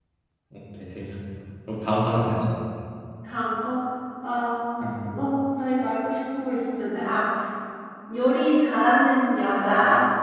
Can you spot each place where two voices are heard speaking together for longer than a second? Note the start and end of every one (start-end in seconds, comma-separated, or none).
none